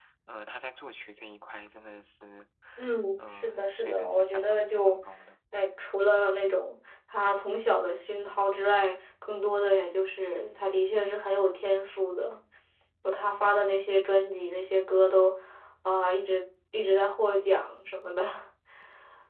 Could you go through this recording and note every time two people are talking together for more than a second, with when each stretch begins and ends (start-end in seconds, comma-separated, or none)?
3.3-5.0